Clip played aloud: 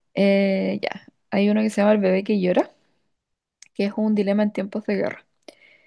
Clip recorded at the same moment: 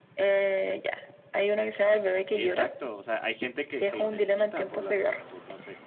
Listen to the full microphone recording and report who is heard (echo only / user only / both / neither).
both